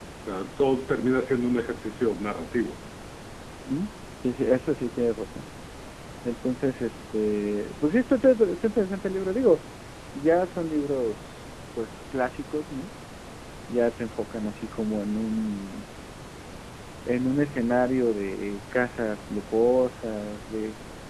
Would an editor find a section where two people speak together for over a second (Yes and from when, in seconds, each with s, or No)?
No